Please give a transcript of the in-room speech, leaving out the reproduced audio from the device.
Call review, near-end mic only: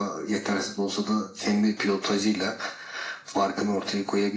none

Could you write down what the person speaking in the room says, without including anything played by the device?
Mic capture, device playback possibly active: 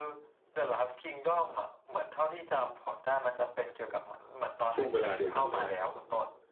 ช่วงเวลาเดียวกันเลย

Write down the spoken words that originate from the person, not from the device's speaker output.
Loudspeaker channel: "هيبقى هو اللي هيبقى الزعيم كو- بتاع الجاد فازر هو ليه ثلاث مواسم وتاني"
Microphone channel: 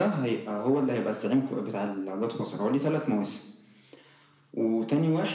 none

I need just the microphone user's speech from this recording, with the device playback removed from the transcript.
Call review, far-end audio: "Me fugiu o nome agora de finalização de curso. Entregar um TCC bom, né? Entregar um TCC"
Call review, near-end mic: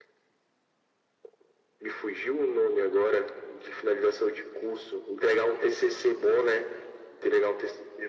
none

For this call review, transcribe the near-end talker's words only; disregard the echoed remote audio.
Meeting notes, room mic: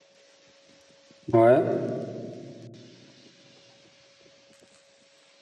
Ouais.

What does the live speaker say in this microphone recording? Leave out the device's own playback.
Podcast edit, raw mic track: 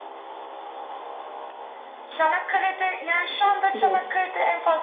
Yok.

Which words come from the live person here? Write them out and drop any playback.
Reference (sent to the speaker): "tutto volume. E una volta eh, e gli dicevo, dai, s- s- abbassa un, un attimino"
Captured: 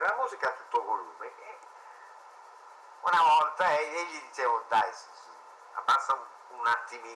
none

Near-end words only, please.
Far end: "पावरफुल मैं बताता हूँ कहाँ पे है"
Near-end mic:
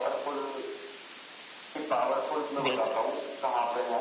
बिल्कुल

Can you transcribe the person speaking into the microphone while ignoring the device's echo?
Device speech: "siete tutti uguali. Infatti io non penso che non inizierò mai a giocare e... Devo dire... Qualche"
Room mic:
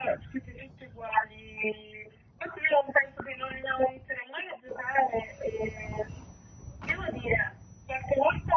none

